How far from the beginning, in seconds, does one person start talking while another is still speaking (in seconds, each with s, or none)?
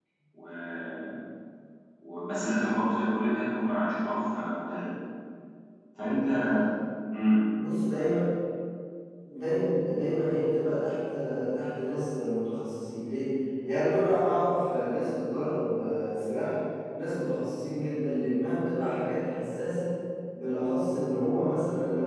none